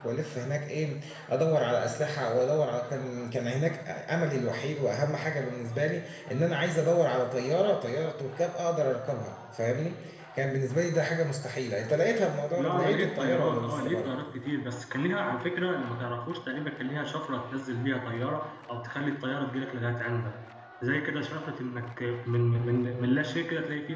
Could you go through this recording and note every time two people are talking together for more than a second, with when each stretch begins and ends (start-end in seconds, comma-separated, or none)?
12.6-14.1